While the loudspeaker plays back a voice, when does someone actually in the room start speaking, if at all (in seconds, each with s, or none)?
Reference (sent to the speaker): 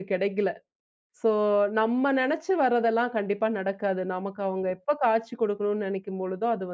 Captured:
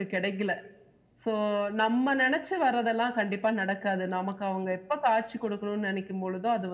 none